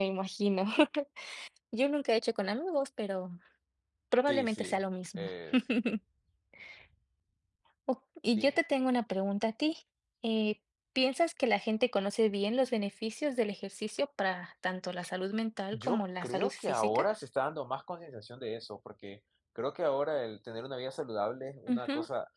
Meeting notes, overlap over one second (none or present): present